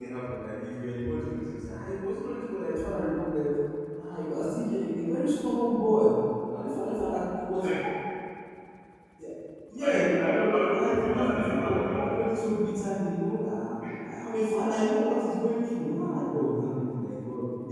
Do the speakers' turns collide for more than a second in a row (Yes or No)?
Yes